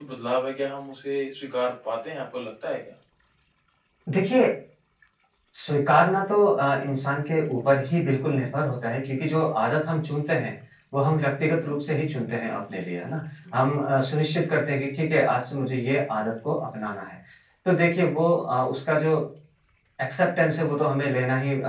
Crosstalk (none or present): none